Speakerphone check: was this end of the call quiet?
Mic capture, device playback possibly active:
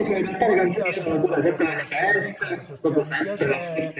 No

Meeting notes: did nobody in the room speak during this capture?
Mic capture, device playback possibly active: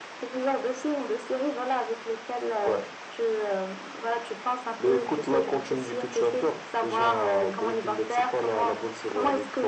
Yes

